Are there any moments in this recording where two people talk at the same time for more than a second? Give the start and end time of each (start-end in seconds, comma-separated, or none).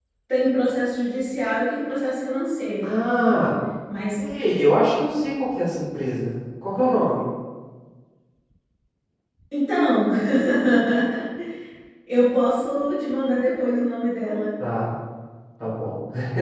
none